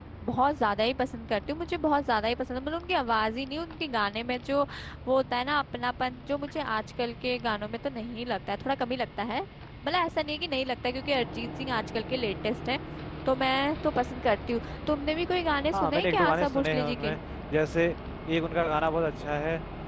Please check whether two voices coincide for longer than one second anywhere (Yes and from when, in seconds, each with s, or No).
Yes, from 15.7 s